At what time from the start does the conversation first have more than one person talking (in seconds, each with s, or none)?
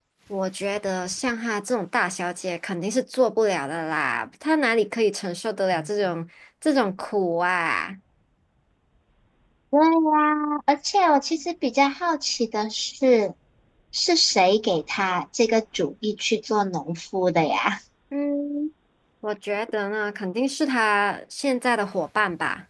none